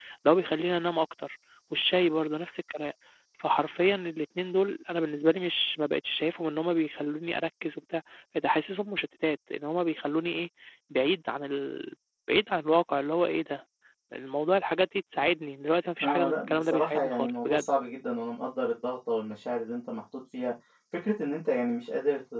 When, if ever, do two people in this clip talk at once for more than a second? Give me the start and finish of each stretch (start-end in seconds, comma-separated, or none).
16.0-17.7